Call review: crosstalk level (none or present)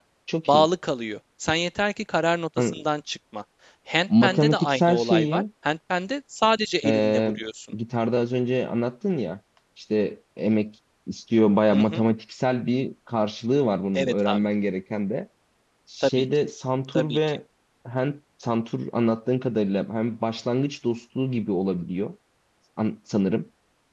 present